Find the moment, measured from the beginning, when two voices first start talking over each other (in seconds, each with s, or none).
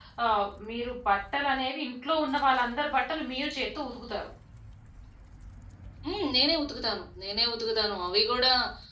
none